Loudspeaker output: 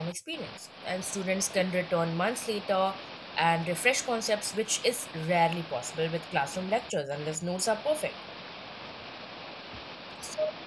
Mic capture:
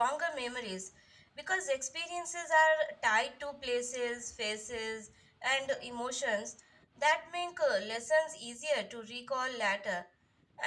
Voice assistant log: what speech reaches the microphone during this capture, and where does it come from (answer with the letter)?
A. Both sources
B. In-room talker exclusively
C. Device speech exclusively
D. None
B